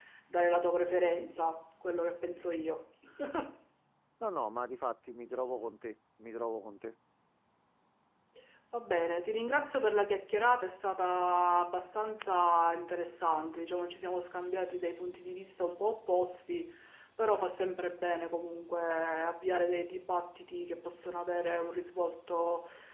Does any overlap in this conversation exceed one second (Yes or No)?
No